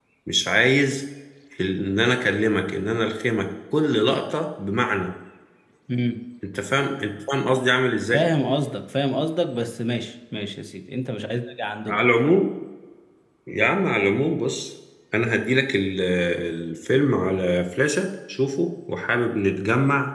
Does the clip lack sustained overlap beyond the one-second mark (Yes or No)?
Yes